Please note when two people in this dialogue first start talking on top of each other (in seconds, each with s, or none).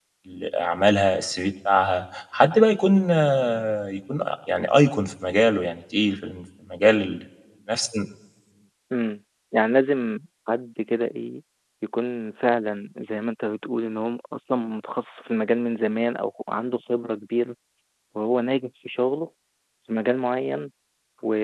none